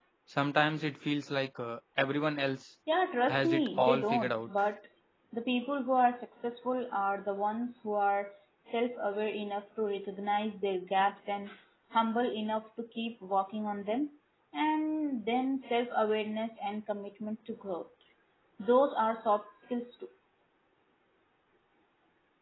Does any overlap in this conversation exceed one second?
Yes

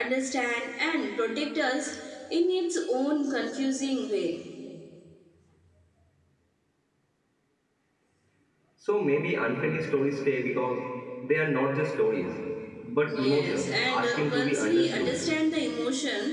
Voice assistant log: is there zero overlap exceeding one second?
No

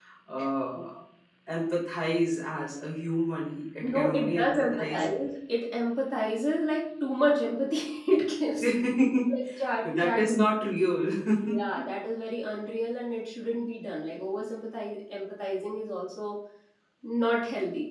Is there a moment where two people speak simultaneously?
Yes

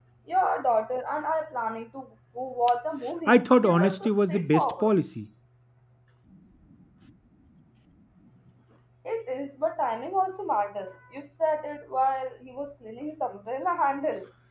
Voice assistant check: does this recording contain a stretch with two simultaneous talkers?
Yes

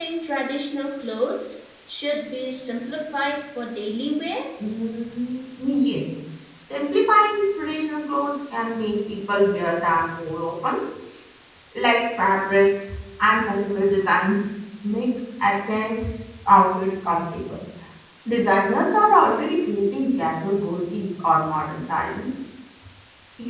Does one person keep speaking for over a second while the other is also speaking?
No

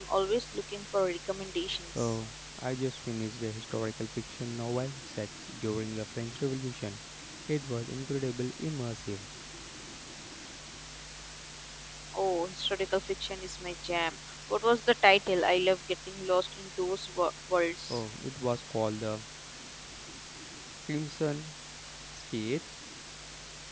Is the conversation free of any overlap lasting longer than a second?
Yes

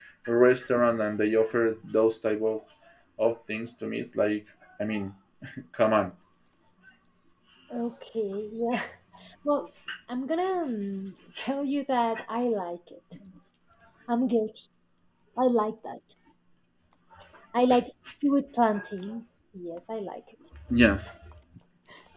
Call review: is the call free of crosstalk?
Yes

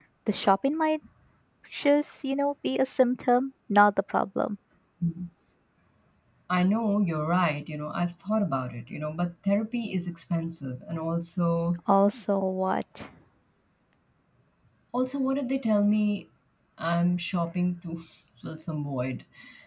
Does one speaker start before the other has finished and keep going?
No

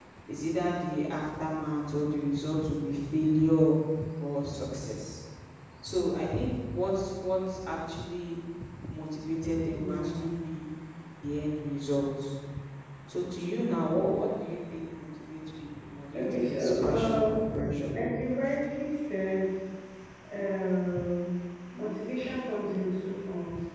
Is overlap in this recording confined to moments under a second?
No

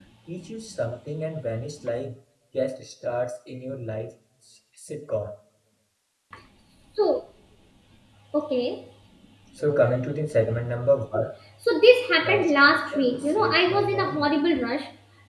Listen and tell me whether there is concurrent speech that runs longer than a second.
Yes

